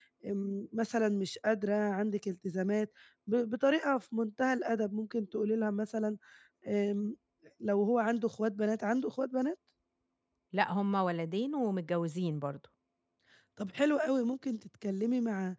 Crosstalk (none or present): none